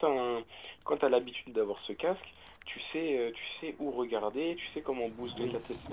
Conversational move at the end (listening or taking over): taking over